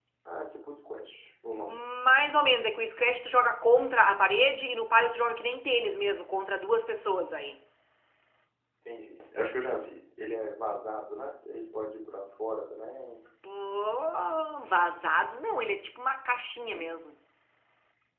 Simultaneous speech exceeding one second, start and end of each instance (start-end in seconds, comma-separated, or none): none